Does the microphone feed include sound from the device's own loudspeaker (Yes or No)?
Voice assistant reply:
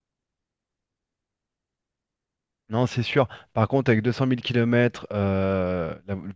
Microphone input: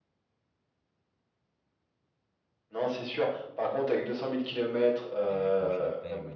Yes